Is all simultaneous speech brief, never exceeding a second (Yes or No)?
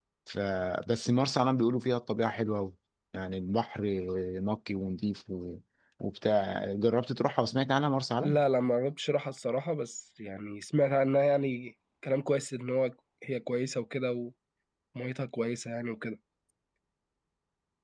Yes